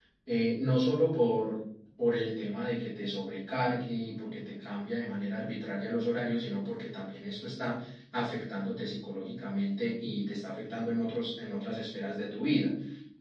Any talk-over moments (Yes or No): No